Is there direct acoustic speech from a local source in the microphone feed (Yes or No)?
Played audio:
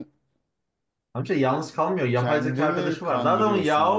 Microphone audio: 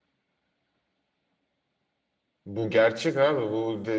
Yes